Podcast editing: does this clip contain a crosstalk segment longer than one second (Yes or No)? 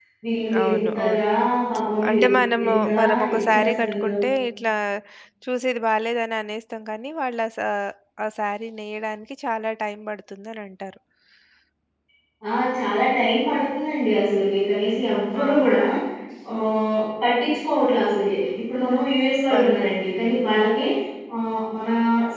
Yes